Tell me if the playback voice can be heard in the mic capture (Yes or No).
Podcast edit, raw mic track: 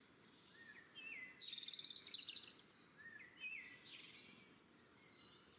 No